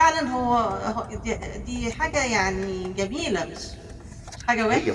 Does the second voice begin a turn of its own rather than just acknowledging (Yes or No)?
Yes